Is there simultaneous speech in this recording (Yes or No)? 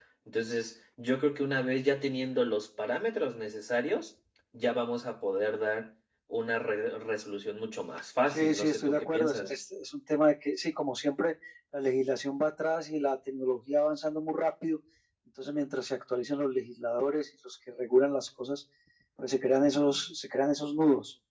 Yes